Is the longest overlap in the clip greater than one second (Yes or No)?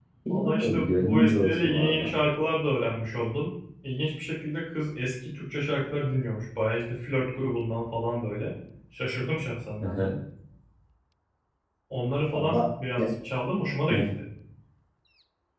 Yes